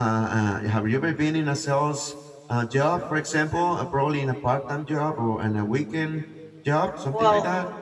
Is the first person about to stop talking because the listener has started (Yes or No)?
Yes